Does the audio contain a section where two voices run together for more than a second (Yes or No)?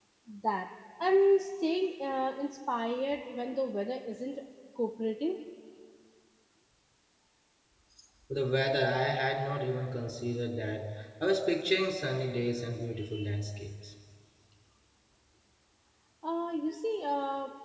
No